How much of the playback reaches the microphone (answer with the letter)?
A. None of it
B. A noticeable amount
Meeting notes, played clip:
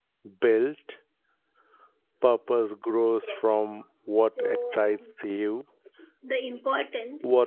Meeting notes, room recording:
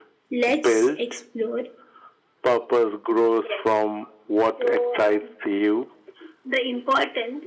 B